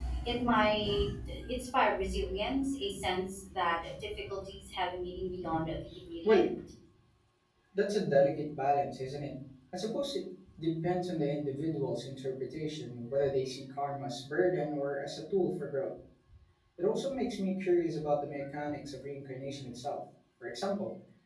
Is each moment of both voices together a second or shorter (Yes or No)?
Yes